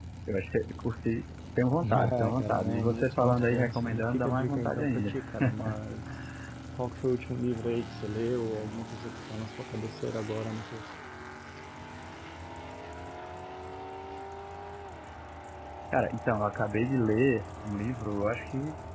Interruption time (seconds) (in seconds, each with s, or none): 1.8 s